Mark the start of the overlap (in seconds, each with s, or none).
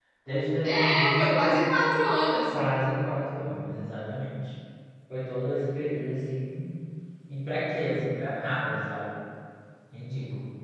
0.6 s